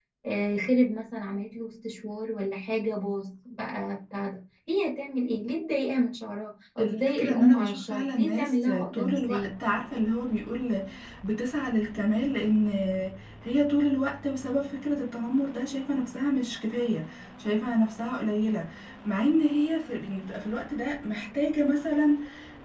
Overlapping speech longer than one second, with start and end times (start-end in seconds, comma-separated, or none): 6.8-9.5